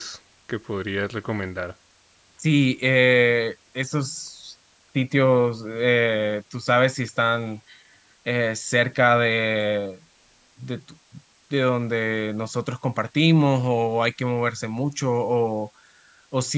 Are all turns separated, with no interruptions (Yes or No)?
Yes